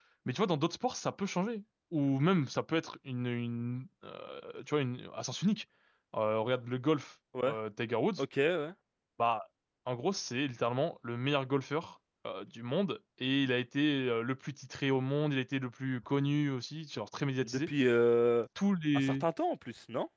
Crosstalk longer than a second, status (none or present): none